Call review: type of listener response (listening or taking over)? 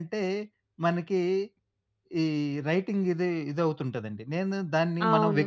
listening